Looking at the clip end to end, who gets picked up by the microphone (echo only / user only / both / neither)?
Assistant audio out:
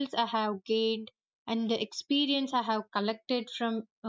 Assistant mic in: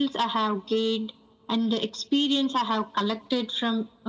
echo only